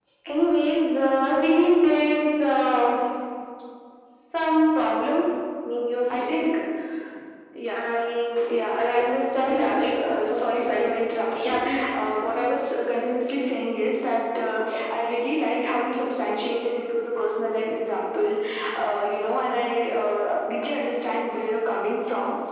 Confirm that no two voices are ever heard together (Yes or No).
No